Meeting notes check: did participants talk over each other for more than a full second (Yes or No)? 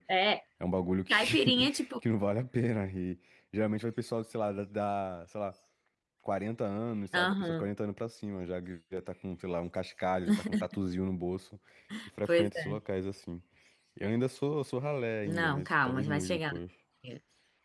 Yes